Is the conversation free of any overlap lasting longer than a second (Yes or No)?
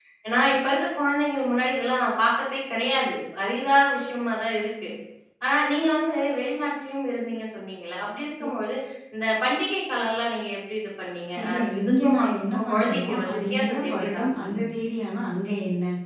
No